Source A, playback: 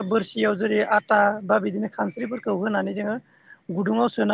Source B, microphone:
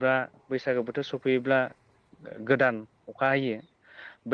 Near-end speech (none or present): present